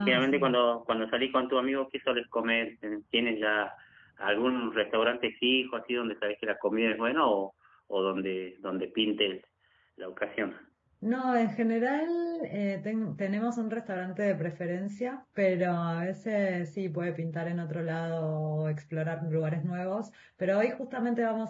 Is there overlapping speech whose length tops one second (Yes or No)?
No